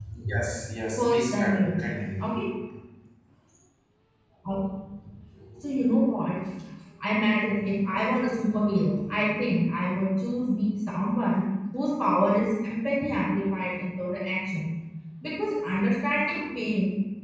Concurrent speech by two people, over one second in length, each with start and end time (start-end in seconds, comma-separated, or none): 1.0-2.2